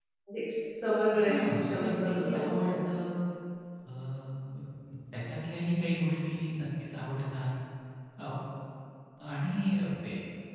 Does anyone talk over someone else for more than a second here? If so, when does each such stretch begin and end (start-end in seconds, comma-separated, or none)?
1.2-3.0